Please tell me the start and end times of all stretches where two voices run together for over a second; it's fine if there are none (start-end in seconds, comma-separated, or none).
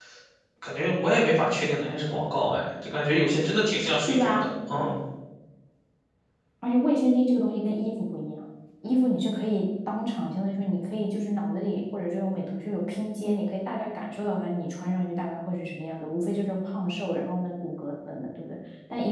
none